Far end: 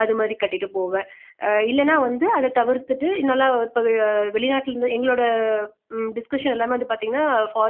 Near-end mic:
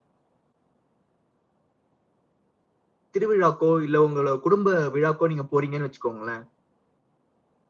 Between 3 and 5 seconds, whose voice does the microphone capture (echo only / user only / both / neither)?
user only